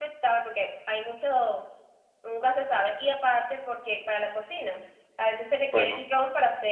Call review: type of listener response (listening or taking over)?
listening